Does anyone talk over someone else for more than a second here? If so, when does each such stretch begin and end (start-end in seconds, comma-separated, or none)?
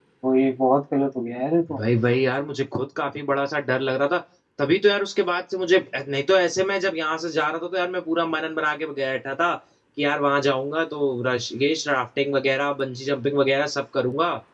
none